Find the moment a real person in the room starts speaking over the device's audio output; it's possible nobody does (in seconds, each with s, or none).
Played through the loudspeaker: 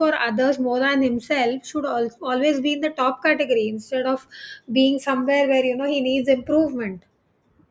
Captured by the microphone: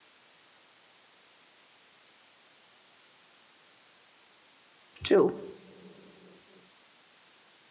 5.0 s